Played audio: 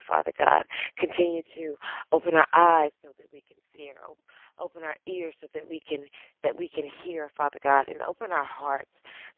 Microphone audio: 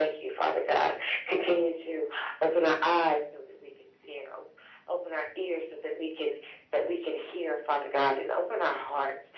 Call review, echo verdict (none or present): present